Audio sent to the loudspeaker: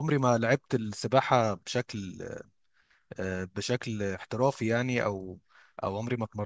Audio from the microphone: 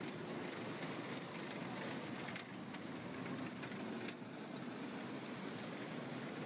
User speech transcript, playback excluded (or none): none